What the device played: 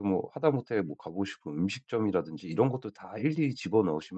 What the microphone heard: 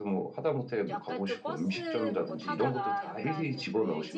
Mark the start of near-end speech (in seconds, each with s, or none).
0.9 s